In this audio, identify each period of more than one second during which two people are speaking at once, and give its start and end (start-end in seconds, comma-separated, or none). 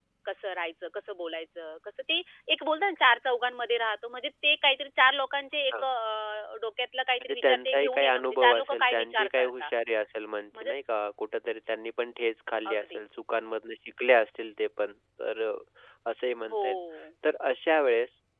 7.2-9.7